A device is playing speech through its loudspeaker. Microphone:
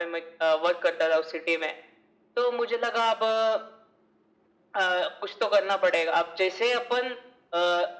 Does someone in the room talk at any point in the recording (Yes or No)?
No